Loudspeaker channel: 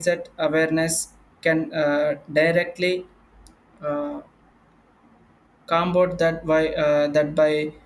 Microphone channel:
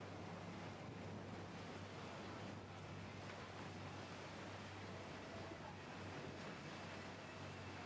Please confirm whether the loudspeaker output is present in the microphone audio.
No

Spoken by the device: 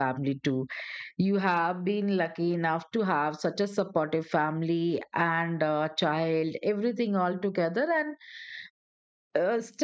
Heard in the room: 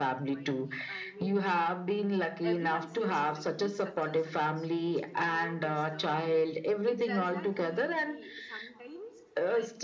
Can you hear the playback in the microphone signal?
Yes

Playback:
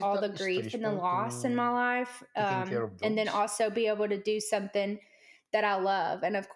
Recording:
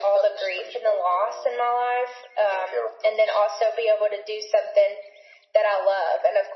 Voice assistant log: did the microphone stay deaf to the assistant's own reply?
No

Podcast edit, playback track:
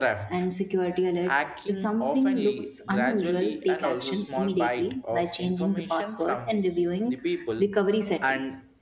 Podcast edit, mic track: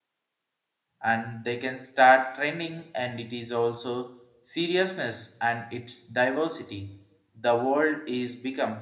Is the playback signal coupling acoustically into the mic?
No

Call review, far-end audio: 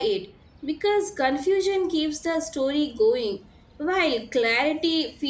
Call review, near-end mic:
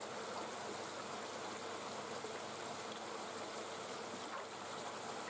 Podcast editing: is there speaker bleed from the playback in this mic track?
No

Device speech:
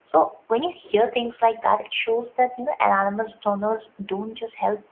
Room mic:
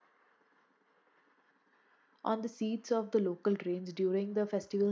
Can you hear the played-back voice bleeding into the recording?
No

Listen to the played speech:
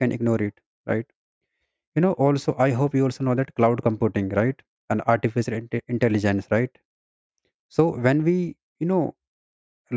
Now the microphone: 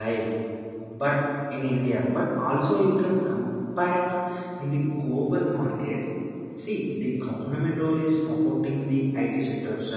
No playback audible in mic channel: Yes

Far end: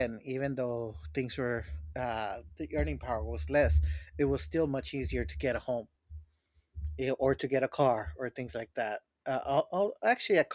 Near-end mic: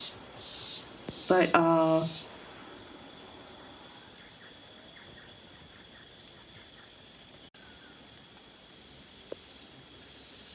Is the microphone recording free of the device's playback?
Yes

